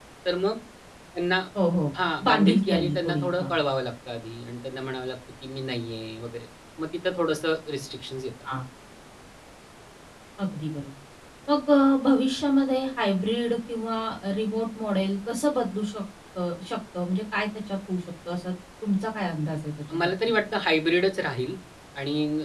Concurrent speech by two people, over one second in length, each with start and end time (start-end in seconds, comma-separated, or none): 2.3-3.5